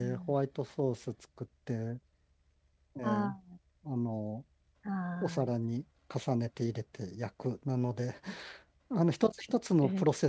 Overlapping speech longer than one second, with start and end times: none

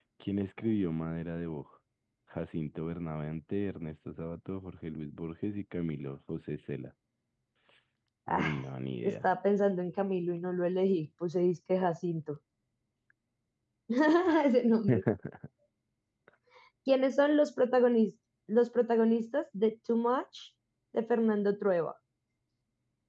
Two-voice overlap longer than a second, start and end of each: none

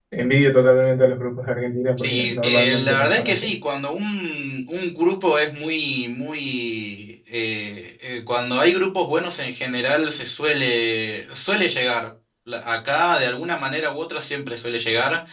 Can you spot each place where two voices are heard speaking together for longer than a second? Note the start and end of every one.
2.0-3.5

